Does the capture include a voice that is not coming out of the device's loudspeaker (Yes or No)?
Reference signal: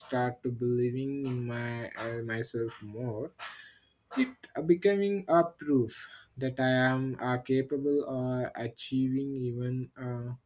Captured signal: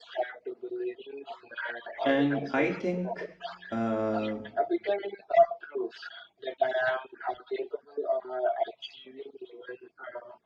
Yes